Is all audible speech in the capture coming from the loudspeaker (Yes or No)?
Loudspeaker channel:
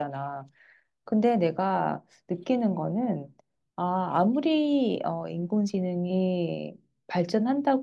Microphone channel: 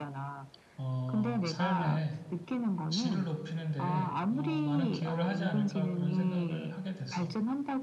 No